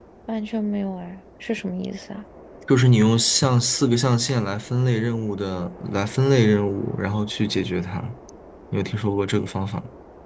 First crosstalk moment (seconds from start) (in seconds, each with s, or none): none